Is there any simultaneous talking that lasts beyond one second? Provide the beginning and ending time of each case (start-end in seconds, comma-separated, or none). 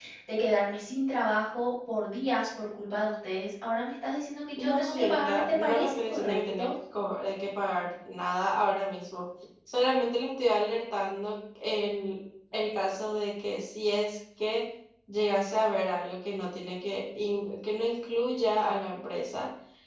4.6-6.7